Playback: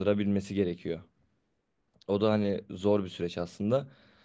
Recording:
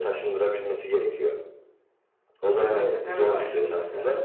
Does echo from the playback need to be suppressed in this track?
Yes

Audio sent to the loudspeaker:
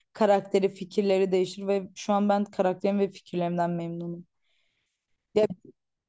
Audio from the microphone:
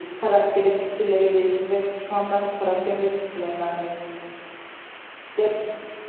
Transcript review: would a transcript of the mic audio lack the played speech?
No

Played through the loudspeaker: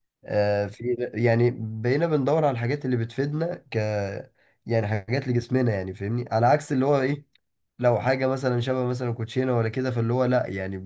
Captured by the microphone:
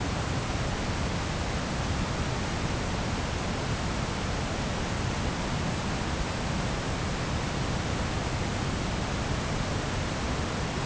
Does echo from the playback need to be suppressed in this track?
No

